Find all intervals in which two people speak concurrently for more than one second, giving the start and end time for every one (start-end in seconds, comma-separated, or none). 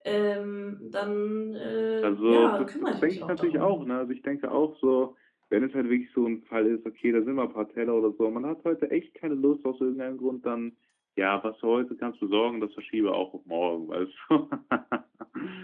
2.0-3.7